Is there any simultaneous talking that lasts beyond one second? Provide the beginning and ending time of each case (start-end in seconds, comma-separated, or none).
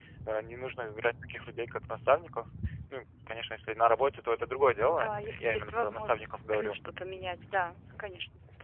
4.8-6.8